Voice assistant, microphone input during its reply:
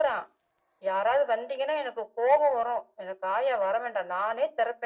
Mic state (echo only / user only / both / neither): echo only